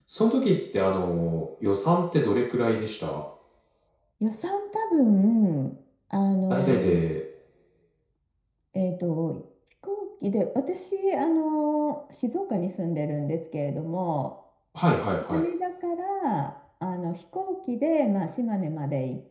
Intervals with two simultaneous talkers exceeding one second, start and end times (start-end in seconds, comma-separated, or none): none